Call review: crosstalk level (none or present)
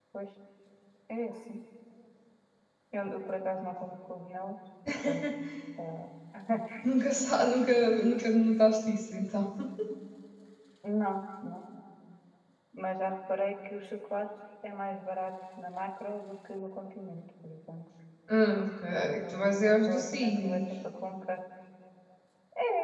present